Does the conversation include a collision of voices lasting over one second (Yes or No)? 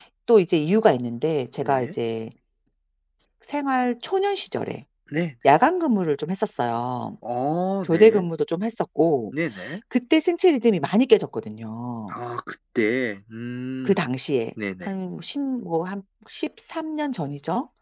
No